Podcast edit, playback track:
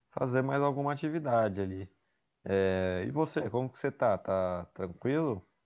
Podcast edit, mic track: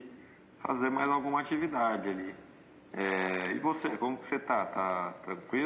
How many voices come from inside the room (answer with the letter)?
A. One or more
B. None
B